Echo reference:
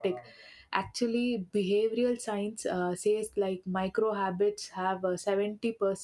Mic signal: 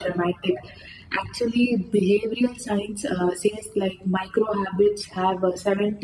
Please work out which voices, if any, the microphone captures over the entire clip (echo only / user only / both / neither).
echo only